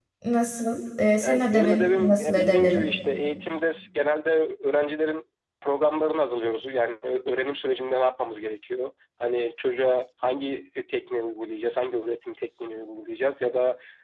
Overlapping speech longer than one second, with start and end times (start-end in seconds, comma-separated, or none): 1.2-2.9